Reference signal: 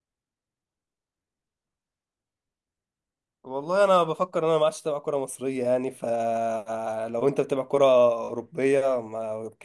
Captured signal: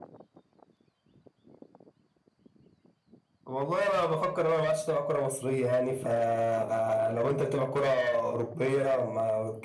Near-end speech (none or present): present